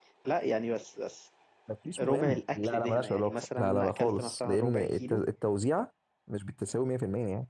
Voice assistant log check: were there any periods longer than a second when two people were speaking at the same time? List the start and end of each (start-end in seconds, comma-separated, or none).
2.0-5.2